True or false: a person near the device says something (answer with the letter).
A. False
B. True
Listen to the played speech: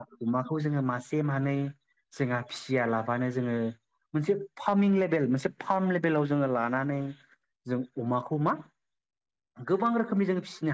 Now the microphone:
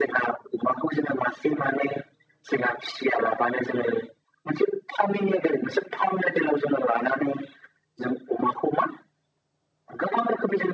A